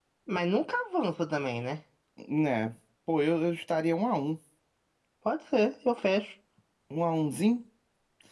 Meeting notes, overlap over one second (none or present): none